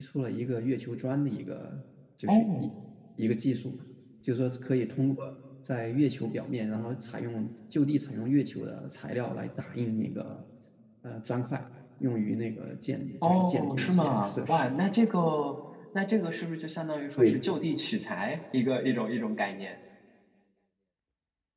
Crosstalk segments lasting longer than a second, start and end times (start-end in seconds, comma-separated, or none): 13.2-14.7